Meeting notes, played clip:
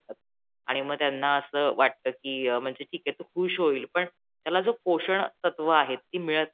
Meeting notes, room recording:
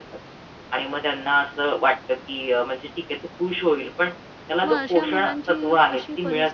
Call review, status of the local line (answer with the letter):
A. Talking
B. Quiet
A